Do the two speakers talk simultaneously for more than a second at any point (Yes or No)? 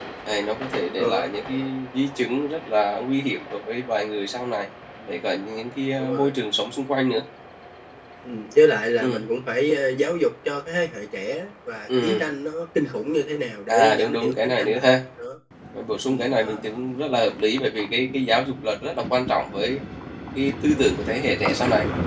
Yes